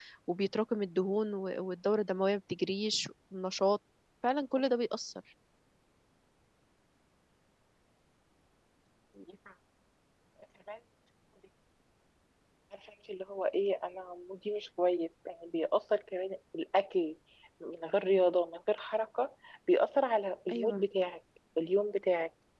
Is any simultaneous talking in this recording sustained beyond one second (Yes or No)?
No